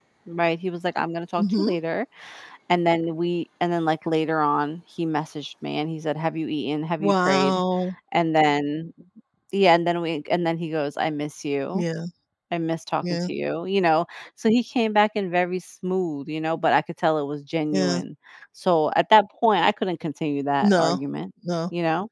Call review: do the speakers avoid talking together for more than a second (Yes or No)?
Yes